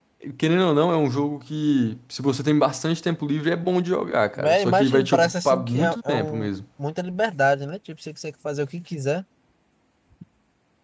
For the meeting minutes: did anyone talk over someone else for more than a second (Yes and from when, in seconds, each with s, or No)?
Yes, from 4.4 s